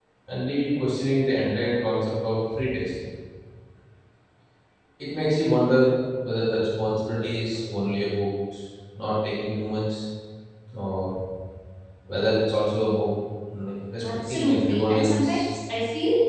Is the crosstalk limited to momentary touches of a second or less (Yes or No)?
No